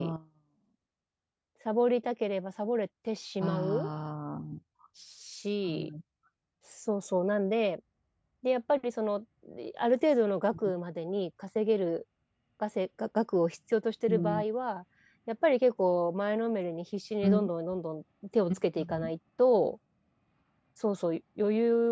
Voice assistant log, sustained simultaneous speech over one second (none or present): none